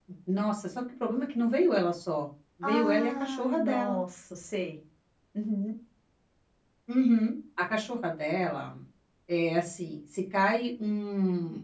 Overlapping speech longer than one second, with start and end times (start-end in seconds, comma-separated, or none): 2.6-4.0